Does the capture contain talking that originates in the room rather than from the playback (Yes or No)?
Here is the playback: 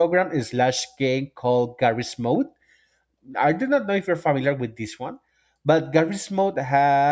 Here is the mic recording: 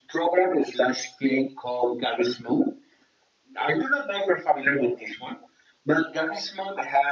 No